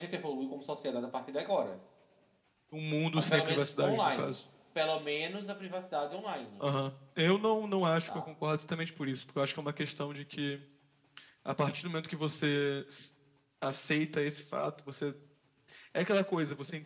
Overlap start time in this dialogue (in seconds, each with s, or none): 3.2 s